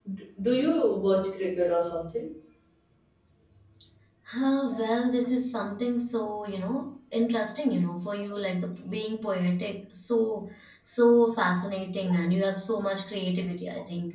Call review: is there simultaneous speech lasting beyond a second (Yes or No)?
No